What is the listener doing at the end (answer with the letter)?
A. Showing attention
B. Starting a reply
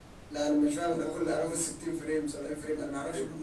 B